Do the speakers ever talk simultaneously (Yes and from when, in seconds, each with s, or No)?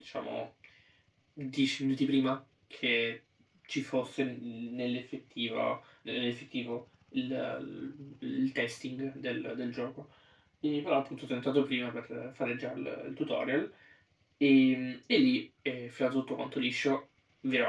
No